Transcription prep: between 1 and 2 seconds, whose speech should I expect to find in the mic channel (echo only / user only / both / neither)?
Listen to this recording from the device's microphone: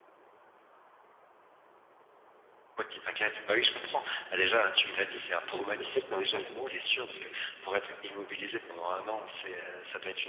neither